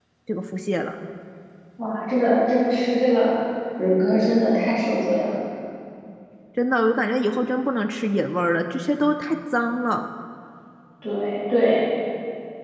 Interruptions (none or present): none